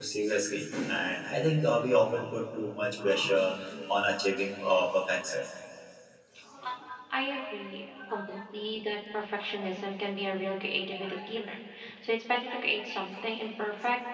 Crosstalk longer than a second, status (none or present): none